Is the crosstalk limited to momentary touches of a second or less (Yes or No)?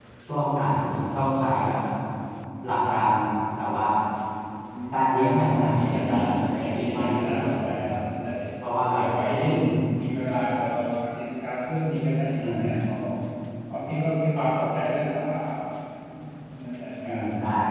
No